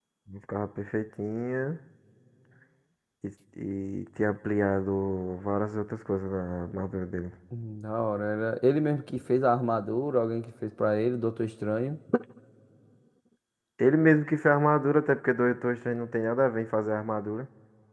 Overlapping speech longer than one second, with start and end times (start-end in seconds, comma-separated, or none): none